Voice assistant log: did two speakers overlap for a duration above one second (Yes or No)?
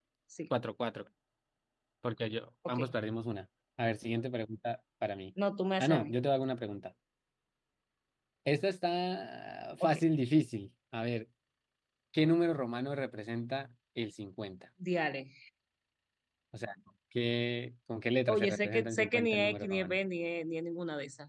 Yes